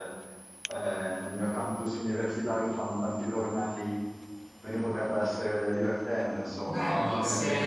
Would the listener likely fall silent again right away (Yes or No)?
No